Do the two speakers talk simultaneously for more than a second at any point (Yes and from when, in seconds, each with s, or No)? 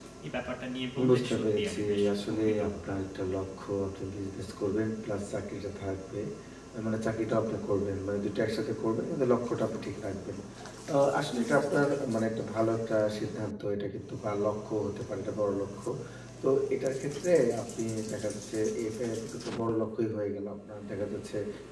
Yes, from 1.1 s